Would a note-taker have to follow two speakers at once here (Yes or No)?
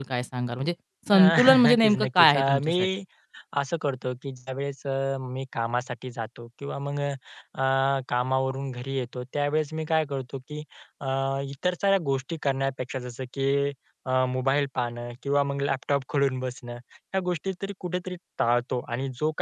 Yes